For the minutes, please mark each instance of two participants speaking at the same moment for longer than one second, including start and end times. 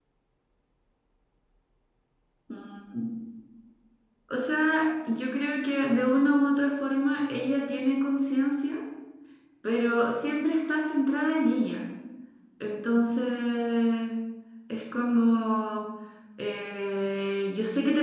none

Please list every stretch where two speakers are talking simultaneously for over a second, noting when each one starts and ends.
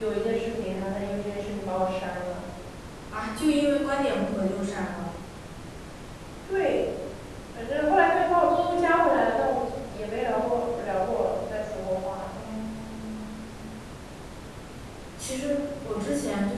none

